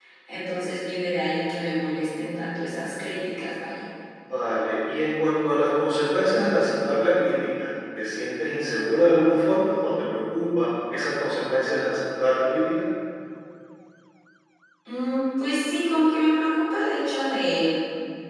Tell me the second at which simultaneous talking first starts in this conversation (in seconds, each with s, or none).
none